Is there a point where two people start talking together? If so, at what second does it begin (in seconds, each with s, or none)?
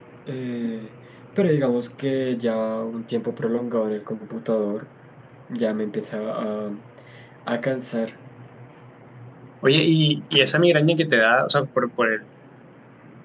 none